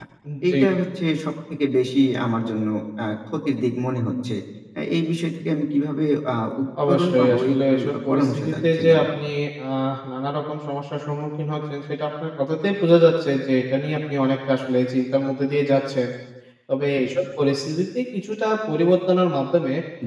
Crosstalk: present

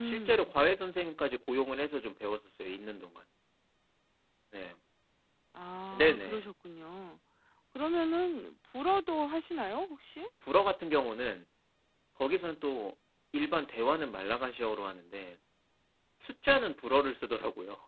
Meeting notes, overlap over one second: none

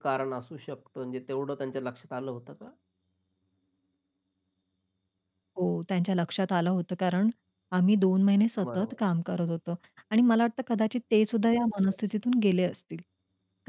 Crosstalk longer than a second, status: none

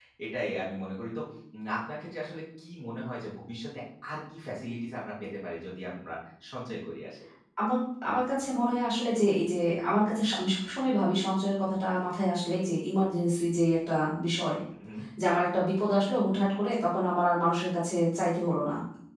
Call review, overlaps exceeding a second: none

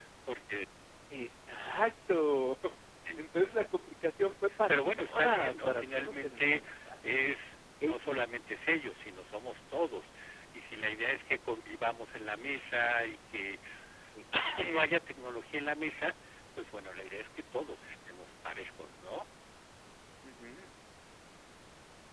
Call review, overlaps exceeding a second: present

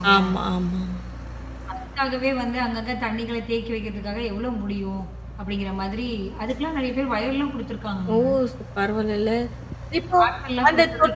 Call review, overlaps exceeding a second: none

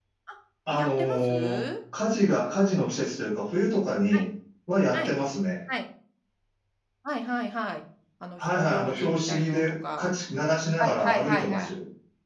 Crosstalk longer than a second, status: present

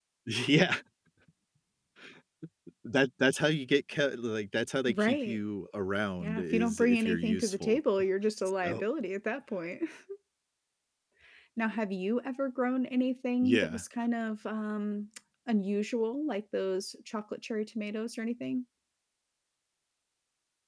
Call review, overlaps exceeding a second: present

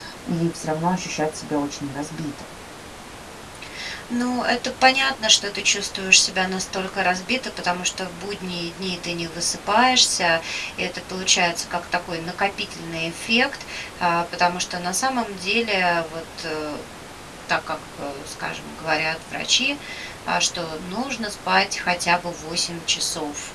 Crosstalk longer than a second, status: none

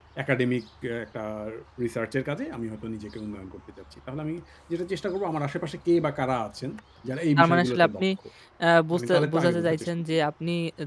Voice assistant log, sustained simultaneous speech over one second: present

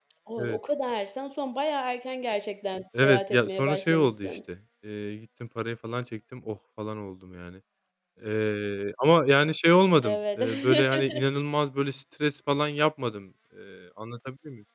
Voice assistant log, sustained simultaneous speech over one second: present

